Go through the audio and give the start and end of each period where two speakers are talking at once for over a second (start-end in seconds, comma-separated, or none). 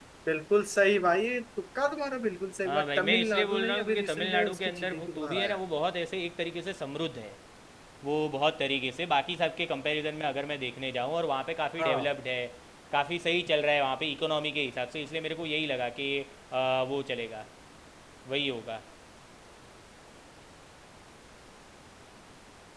2.6-5.6